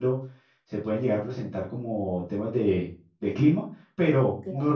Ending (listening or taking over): listening